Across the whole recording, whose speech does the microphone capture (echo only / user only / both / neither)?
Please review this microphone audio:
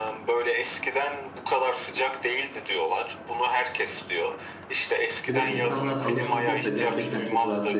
both